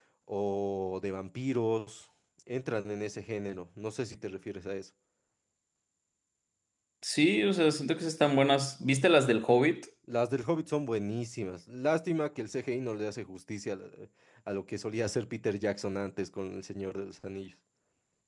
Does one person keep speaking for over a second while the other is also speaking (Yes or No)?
No